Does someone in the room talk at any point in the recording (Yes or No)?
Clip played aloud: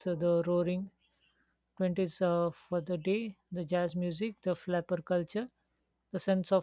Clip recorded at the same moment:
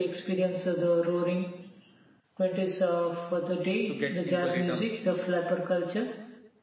Yes